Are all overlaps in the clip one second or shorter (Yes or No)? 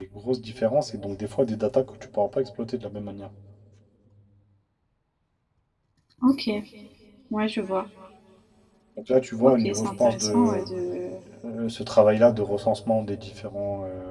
No